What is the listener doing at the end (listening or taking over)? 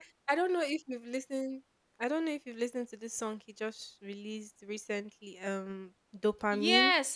taking over